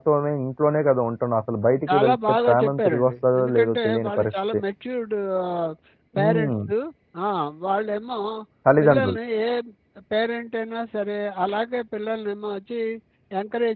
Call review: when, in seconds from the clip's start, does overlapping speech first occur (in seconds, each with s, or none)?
1.9 s